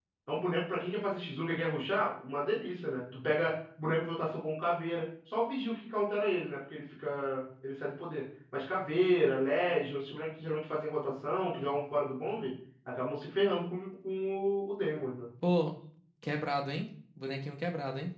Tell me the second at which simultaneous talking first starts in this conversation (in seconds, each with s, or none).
none